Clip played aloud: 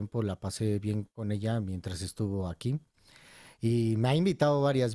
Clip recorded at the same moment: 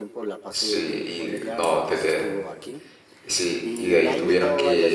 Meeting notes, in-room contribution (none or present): present